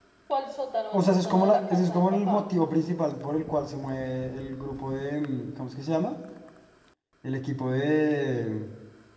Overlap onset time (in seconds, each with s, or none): 0.9 s